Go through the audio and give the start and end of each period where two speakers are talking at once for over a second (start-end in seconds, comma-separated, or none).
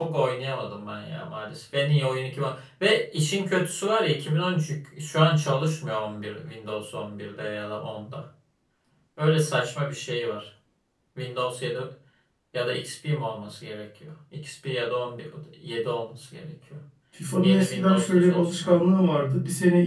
17.4-18.8